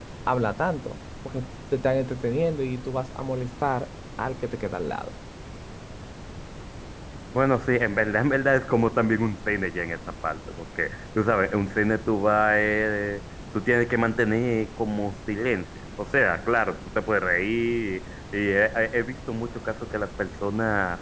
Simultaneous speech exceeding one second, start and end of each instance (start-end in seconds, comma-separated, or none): none